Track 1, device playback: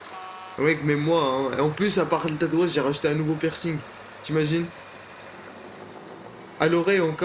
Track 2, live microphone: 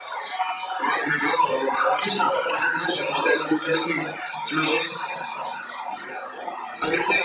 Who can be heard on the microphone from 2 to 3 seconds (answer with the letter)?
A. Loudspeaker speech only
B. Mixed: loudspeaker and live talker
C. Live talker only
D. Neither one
A